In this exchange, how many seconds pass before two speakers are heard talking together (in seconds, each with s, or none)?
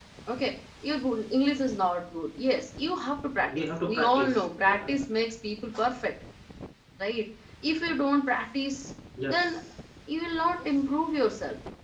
3.5 s